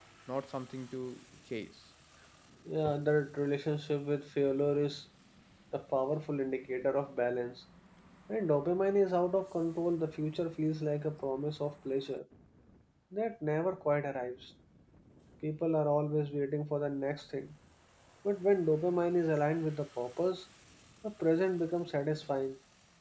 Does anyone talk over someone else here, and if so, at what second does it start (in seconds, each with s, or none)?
none